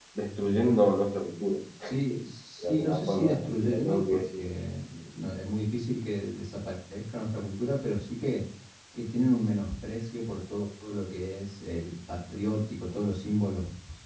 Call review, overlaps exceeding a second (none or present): present